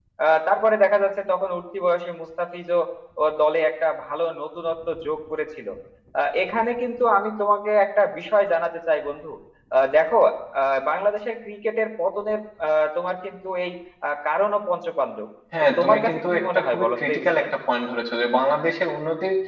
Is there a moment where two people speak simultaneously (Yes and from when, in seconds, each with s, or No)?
Yes, from 15.5 s